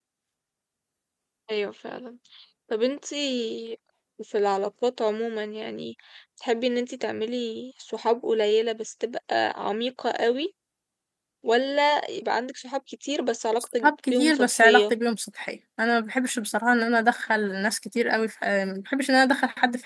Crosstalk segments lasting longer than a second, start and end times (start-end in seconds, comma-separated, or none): 13.6-14.9